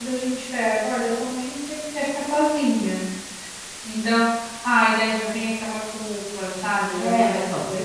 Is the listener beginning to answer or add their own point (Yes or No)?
Yes